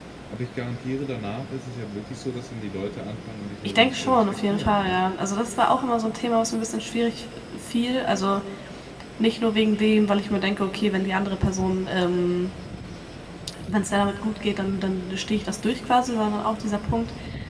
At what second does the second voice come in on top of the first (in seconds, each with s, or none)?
3.6 s